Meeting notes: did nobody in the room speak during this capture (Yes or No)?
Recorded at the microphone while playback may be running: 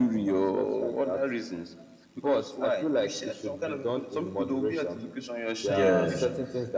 No